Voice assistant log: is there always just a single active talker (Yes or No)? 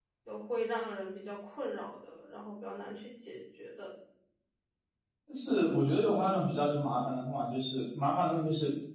Yes